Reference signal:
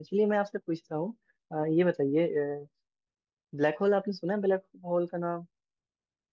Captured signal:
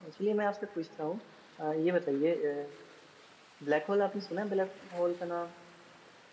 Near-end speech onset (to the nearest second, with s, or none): none